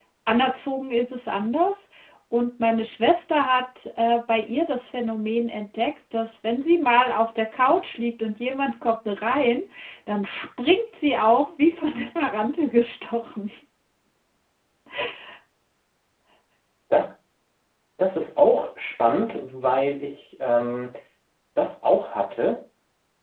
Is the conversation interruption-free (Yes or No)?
Yes